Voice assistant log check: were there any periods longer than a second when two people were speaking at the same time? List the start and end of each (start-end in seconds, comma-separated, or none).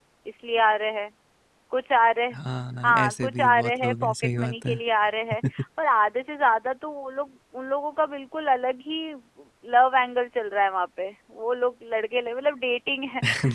2.8-4.8